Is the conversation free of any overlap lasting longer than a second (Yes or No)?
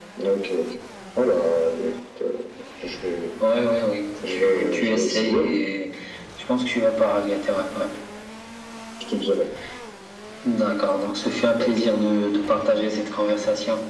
No